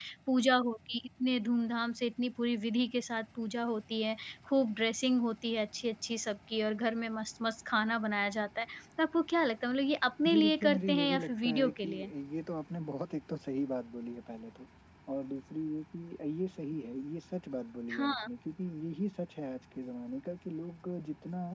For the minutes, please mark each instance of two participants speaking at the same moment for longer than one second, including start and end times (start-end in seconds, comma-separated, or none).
10.2-11.9